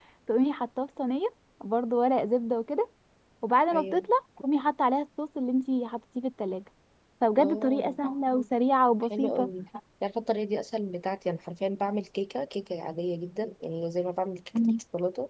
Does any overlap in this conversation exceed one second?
No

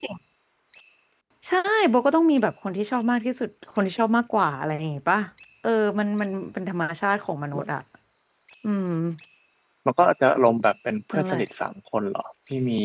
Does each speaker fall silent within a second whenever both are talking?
Yes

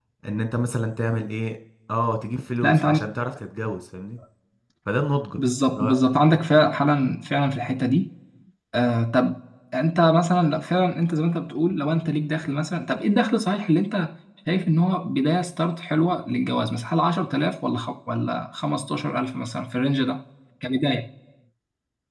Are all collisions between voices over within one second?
Yes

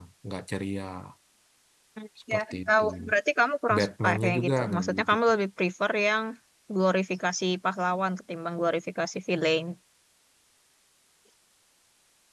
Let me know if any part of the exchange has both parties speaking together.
Yes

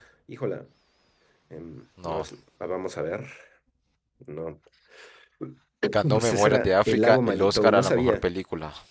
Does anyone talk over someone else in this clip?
Yes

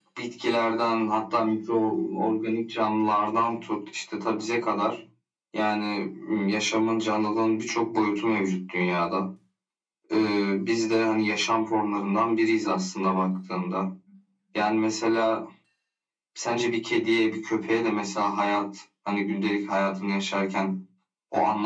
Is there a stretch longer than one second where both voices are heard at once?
No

